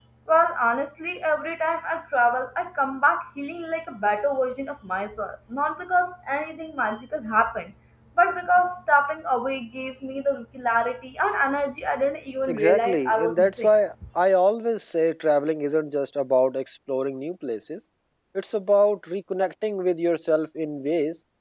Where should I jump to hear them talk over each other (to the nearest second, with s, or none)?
12 s